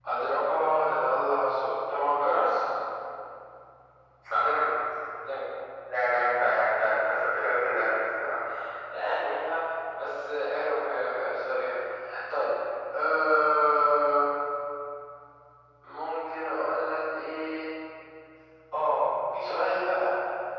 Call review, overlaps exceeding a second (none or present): none